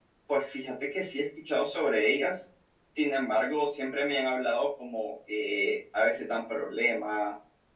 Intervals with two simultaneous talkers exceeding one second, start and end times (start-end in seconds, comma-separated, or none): none